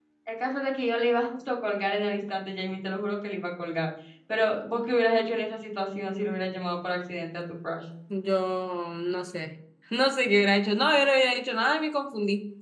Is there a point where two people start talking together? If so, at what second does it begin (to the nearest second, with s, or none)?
none